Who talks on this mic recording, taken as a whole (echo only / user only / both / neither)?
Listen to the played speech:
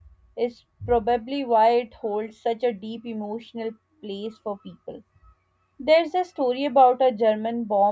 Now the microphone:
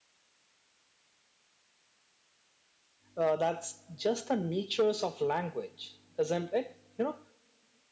user only